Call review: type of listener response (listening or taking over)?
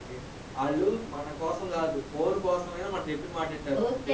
taking over